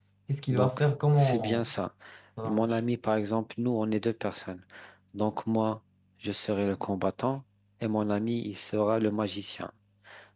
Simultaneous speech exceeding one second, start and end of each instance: 0.5-1.7

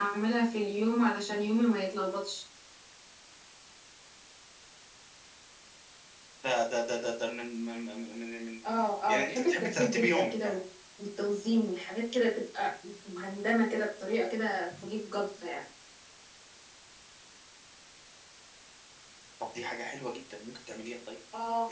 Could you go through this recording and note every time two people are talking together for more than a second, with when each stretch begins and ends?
9.1-10.6

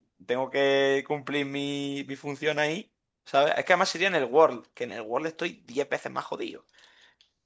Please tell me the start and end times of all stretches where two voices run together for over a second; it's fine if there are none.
none

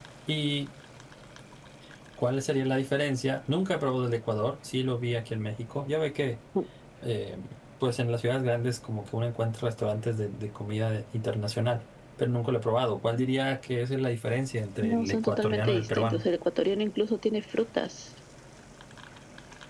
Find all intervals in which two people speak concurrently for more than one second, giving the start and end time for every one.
14.8-16.3

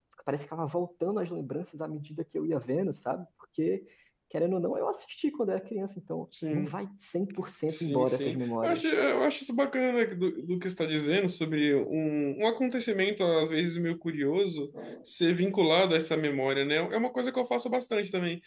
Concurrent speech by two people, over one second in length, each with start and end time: 7.7-8.9

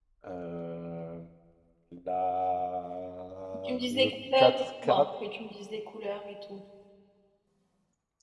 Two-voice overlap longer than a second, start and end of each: 3.6-5.0

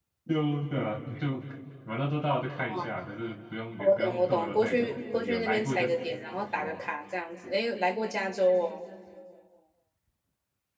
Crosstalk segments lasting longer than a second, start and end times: 3.8-6.0

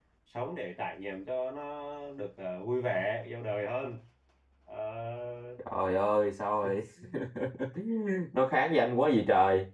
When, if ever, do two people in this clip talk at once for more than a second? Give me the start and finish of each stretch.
none

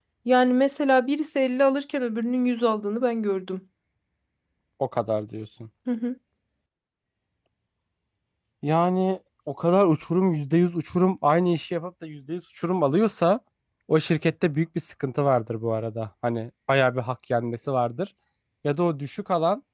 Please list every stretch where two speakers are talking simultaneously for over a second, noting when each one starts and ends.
none

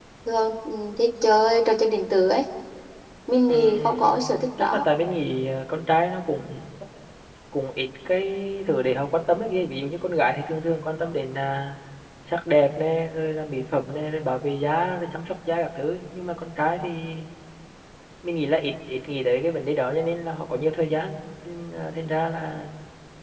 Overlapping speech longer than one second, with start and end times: 3.5-4.8

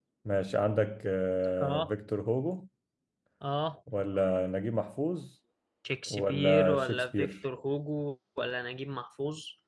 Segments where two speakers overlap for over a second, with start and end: 6.1-7.3

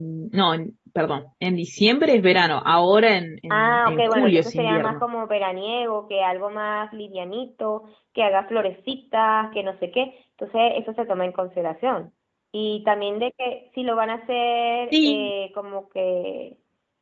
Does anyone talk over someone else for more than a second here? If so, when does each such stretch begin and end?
3.5-5.0

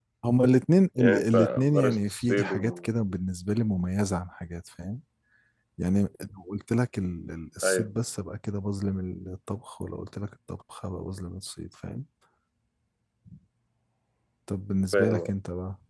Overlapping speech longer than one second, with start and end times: 1.0-2.9

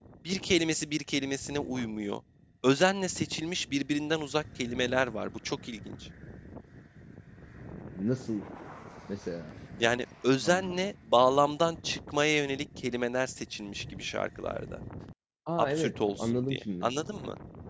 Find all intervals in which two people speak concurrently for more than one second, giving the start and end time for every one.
15.6-16.9

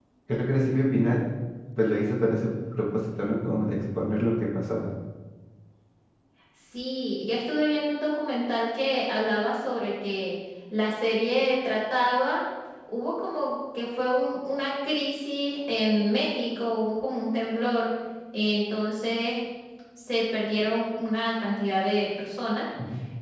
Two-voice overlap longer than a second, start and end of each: none

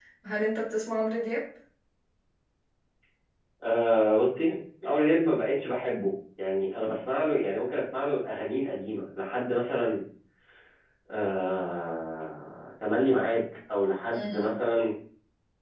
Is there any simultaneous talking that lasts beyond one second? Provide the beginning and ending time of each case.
none

